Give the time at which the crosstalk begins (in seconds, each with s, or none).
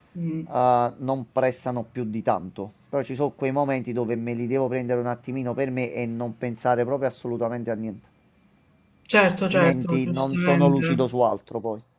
9.5 s